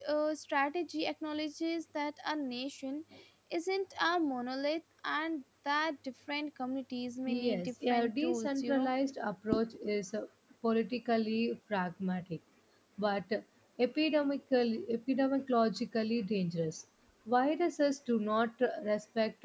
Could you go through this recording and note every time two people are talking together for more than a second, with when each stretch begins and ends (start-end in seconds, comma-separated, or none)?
7.3-8.9